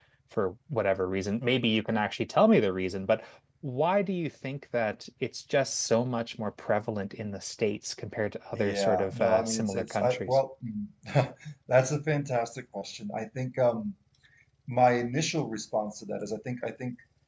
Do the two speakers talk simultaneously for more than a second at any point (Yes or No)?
Yes